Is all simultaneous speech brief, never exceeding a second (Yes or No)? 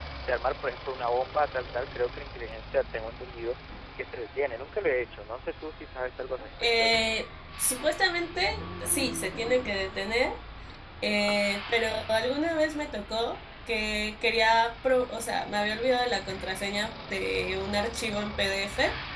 Yes